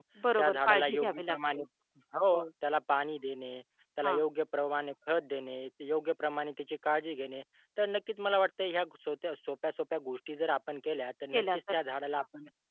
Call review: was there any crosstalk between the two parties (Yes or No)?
Yes